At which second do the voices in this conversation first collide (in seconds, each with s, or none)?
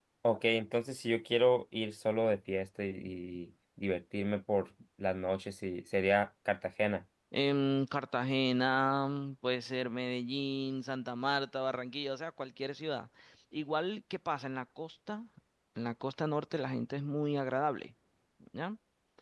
none